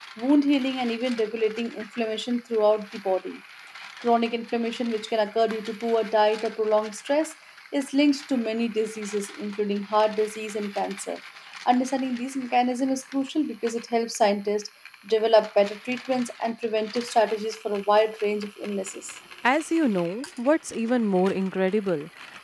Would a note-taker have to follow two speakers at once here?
No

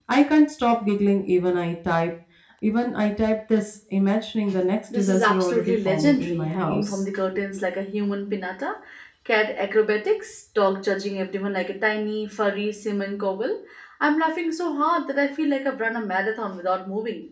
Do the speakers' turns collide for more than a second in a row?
Yes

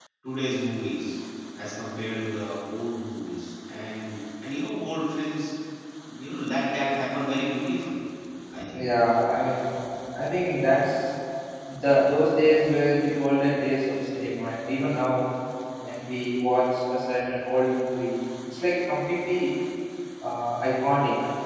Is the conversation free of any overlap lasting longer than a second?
Yes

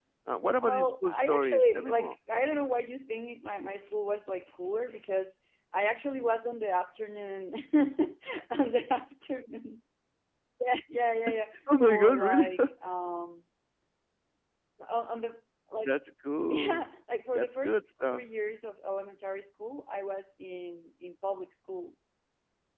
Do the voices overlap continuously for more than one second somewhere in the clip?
Yes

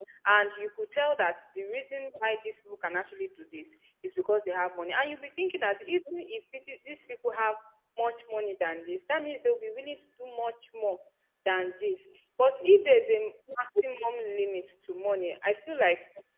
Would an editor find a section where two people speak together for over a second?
No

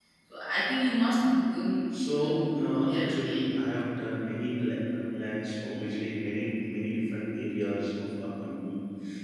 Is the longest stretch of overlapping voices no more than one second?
No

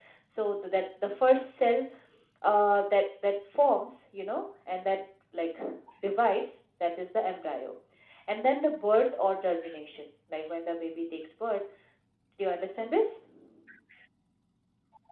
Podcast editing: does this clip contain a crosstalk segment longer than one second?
No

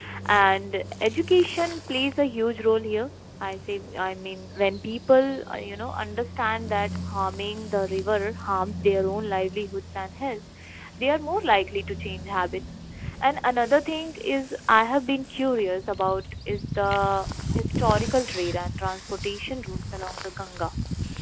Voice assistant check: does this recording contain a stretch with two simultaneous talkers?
No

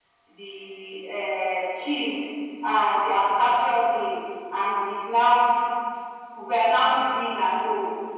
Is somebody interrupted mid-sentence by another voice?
No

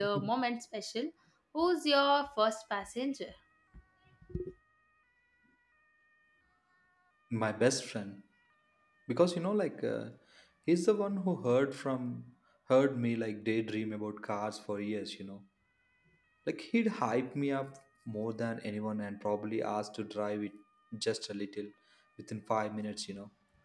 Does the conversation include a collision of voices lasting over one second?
No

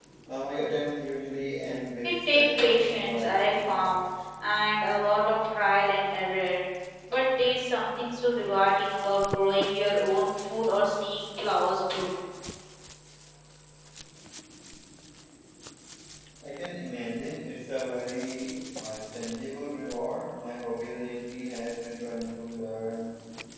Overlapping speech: Yes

